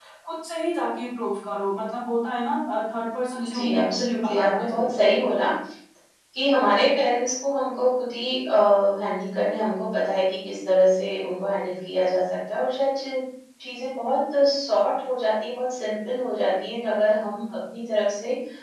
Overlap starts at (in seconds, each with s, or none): 3.3 s